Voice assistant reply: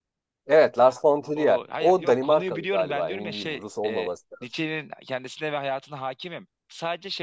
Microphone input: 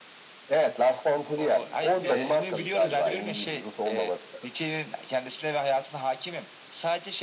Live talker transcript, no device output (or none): e, hiç böyle sürük,